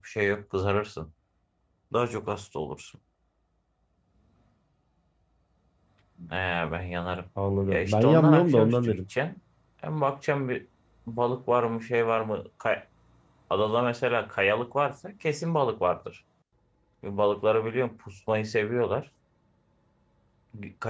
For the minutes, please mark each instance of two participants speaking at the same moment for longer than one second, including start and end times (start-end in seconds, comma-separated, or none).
7.7-9.0